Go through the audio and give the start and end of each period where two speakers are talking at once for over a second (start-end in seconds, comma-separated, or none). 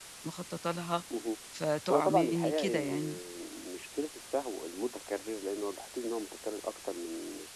1.9-3.2